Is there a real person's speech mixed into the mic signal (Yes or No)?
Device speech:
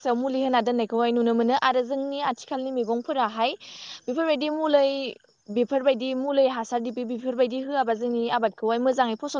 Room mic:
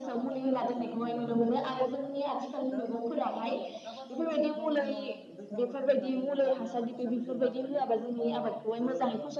Yes